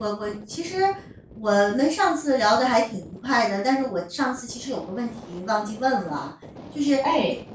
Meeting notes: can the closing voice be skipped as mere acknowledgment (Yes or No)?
Yes